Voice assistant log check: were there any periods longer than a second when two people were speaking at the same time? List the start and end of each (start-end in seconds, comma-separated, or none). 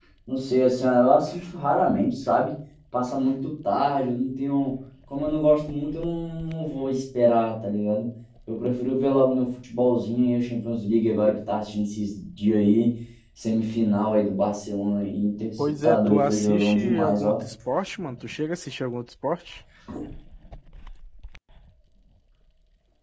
15.6-17.4